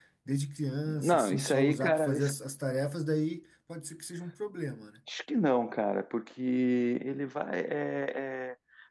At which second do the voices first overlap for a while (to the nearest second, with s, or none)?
1 s